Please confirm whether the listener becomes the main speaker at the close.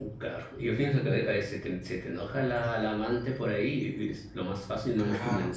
Yes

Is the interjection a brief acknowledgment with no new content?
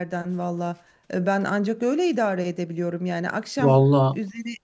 Yes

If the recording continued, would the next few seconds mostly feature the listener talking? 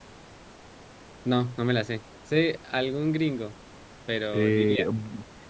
Yes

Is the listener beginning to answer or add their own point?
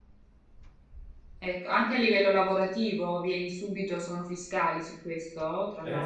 Yes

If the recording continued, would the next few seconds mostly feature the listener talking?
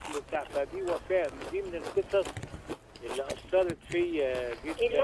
Yes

